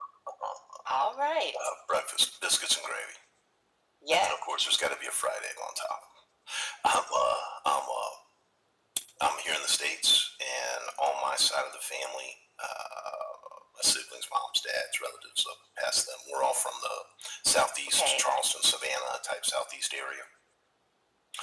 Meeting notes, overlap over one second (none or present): none